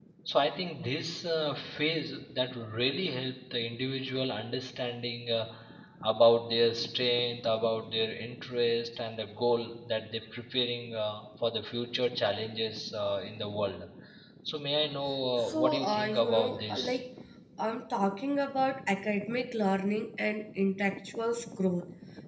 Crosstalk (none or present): present